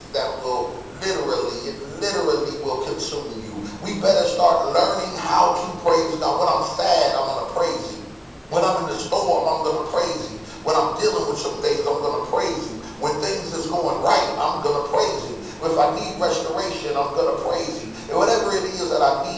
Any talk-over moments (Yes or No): No